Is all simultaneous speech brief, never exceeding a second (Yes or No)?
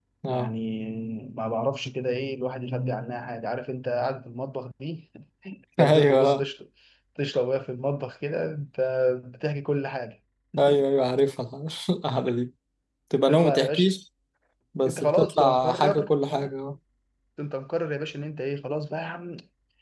No